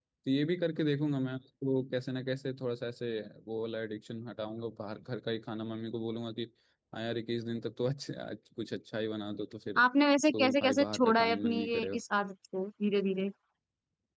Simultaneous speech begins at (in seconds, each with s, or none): 10.2 s